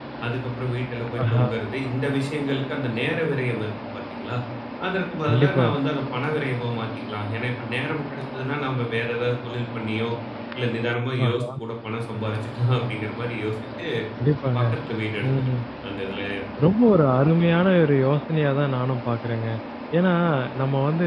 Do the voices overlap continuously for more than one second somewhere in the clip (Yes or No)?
No